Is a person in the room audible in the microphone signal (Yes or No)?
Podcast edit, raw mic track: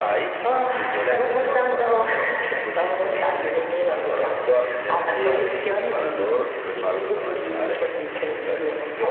Yes